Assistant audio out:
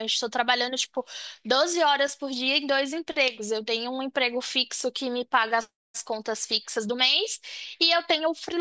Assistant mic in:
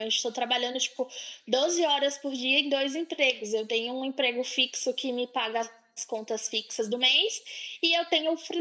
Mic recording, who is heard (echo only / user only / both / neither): echo only